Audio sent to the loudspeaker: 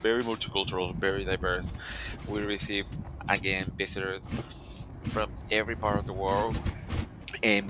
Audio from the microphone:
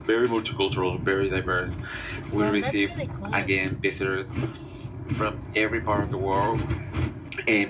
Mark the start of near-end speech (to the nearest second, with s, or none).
2 s